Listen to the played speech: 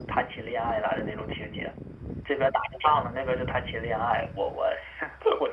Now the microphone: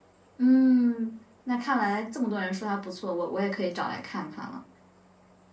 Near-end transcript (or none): 嗯，那看来这么多人说它不错，我我也可以找来看看了。